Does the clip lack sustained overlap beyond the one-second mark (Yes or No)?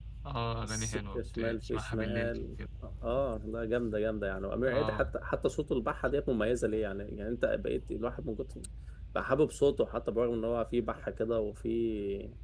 No